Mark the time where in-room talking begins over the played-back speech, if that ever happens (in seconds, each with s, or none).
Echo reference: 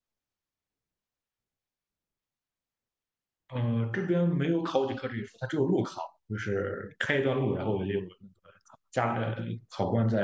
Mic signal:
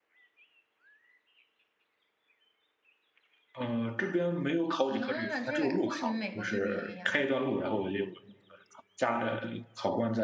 4.9 s